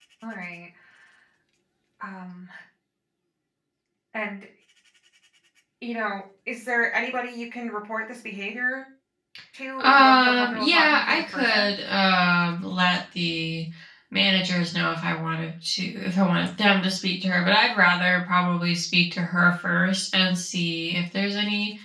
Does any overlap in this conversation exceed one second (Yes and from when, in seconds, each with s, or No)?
Yes, from 9.8 s